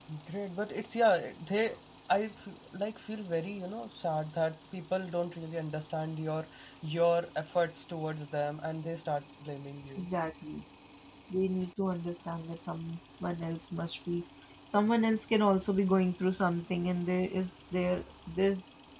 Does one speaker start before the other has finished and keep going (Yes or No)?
No